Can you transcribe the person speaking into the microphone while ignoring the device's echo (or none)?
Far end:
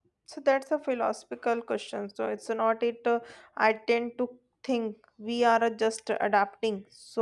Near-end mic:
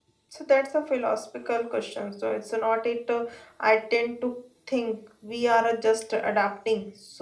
none